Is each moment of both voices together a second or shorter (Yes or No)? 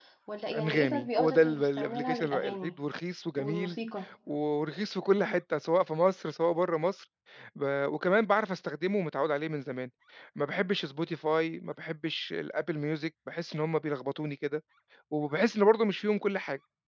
No